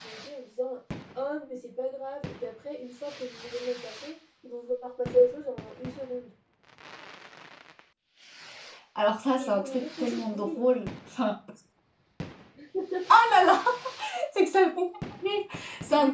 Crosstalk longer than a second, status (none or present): present